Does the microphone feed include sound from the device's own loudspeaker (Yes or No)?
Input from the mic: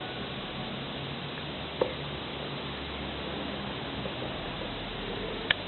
No